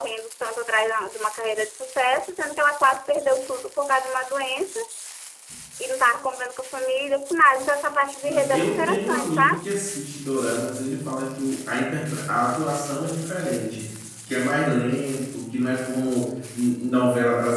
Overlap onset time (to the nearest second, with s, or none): 8 s